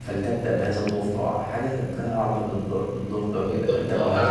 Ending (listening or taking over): taking over